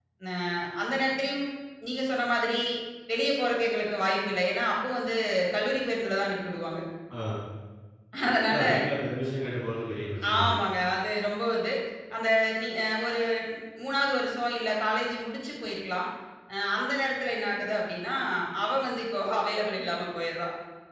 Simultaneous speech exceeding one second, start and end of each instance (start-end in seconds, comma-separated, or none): none